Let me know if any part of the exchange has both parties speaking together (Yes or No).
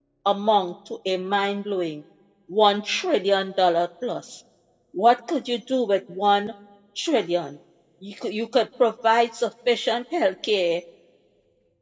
No